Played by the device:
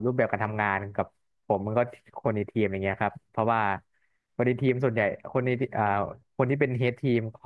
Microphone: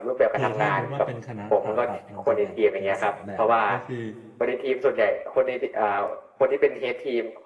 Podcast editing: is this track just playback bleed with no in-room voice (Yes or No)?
No